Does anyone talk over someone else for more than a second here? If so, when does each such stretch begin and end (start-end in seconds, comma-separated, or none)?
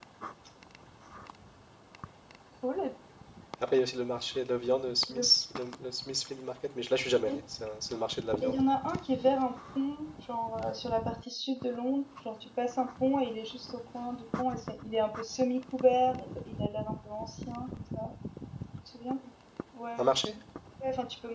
none